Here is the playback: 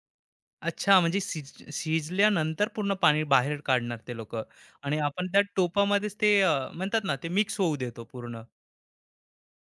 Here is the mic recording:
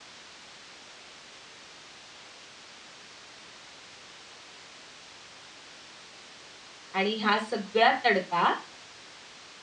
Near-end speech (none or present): present